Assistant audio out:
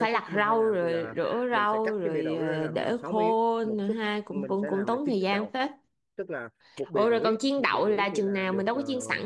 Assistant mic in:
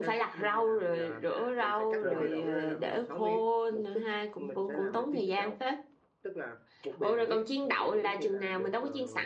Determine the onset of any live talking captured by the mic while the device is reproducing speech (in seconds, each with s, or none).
2.0 s